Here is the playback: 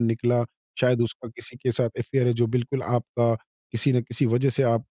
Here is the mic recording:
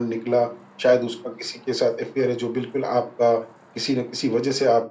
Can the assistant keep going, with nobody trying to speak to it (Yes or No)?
Yes